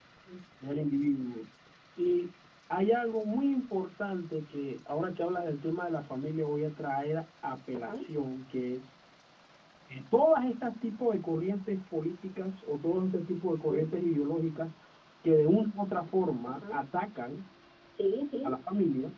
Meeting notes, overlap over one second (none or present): none